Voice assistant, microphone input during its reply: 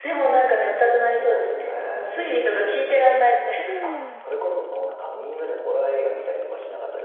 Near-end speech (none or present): present